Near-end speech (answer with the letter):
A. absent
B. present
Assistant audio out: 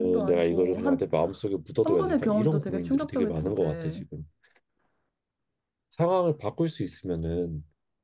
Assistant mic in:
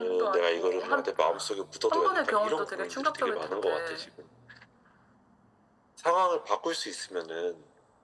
A